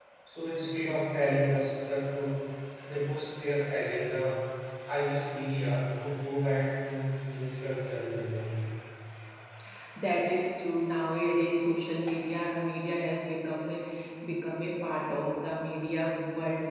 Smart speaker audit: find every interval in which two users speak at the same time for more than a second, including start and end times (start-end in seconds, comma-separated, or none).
none